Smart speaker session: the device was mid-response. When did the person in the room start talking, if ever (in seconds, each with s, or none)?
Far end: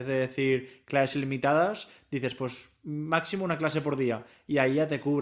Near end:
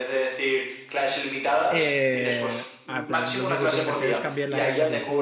1.7 s